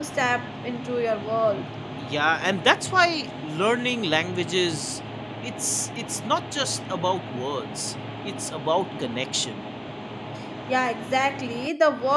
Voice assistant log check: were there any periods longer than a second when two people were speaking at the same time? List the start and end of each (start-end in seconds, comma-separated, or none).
none